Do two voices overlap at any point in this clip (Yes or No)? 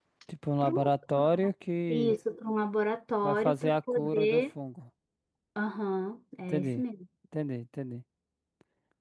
Yes